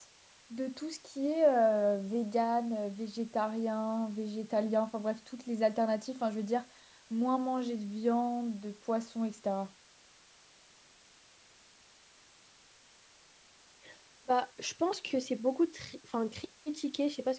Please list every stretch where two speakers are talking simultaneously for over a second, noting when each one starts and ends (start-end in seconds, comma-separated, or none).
none